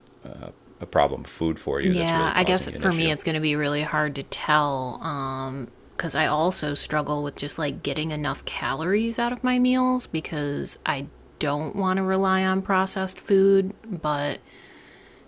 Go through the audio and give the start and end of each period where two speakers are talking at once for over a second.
1.8-3.1

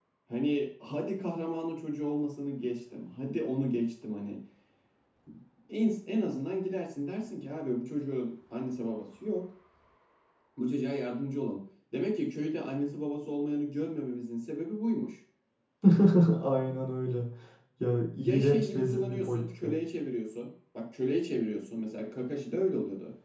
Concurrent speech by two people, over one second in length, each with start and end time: 18.2-19.8

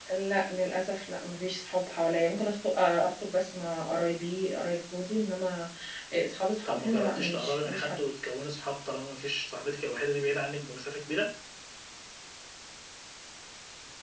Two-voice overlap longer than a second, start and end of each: 6.7-8.0

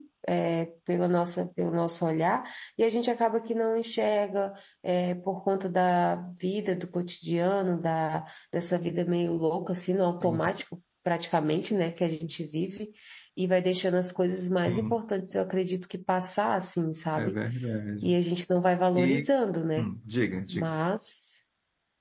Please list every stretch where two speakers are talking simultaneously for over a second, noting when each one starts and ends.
none

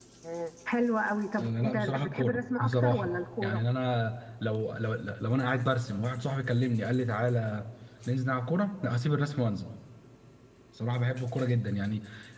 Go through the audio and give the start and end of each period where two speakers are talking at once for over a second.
1.4-3.6

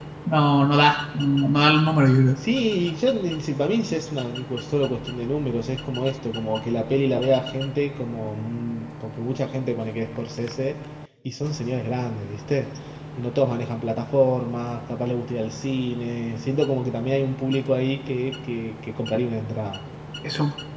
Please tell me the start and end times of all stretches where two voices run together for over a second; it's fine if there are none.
none

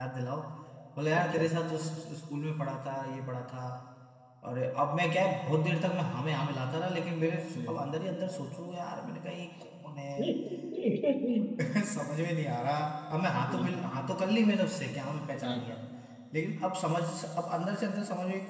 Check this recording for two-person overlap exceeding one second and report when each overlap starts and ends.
none

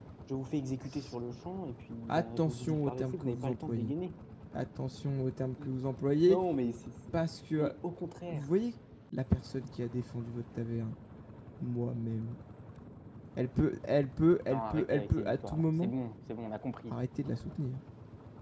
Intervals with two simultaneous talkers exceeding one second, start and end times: 2.1-3.9, 14.5-15.9

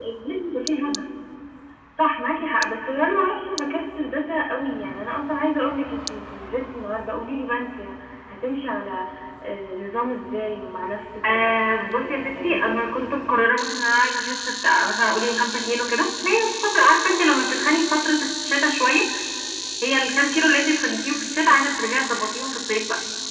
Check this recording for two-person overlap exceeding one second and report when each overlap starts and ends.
11.2-12.8

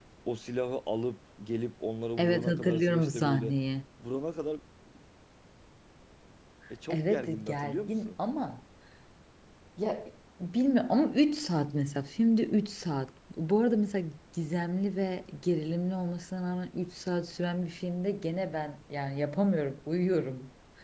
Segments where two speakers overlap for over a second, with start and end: 2.2-3.5, 6.9-8.1

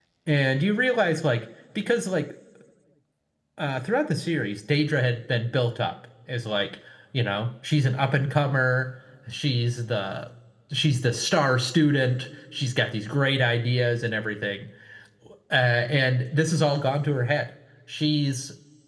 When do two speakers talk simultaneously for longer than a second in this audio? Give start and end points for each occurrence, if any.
none

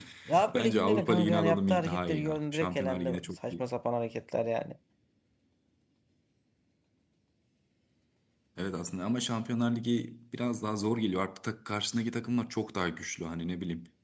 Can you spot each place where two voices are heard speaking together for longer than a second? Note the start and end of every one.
0.5-3.6

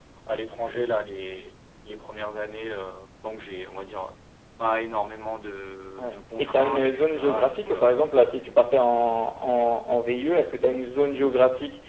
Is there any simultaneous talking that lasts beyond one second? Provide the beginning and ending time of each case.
6.0-8.0

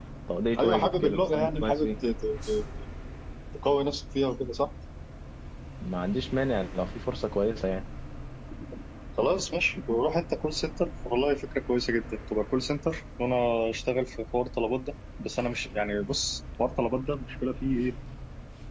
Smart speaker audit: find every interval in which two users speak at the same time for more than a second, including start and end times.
0.6-1.9

